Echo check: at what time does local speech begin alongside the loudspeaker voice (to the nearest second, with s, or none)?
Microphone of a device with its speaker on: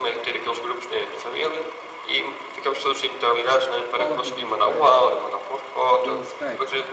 4 s